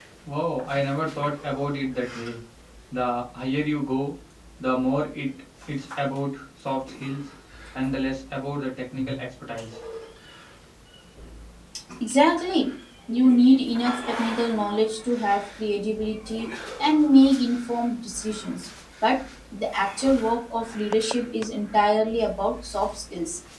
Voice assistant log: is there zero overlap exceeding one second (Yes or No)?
Yes